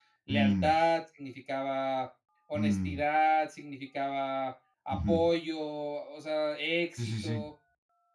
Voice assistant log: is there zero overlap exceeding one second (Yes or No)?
Yes